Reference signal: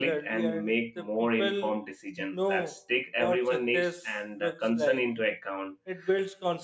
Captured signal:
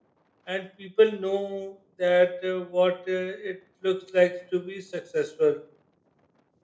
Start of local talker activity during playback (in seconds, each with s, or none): 0.5 s